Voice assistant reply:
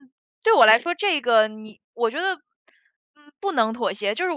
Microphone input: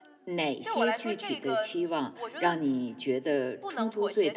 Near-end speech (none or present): present